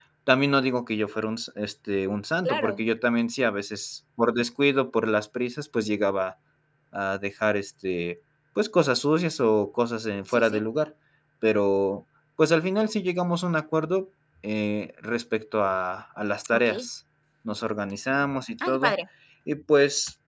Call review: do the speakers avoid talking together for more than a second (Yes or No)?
Yes